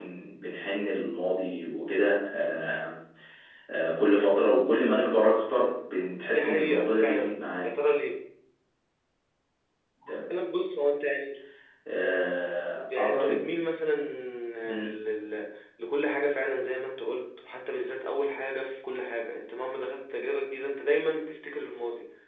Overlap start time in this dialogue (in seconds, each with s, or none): 6.2 s